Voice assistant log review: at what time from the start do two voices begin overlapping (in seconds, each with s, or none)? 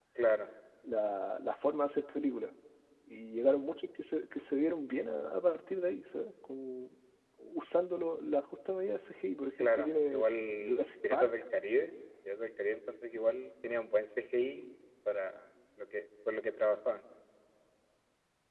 9.6 s